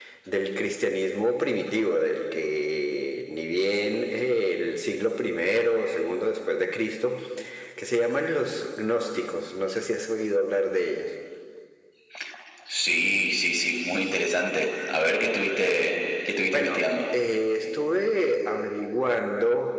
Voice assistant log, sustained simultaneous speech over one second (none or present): none